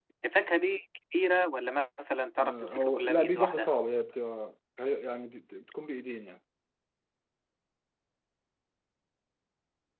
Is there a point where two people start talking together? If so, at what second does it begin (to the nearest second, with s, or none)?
2 s